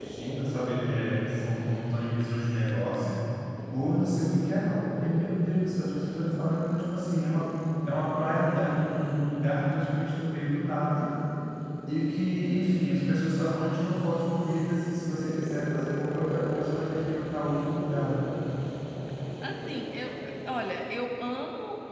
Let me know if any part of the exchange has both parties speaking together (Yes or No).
No